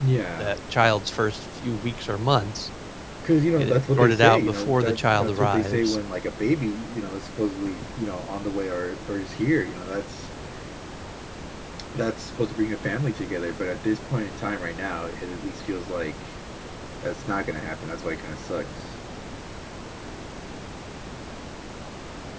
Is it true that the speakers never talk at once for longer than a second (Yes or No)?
No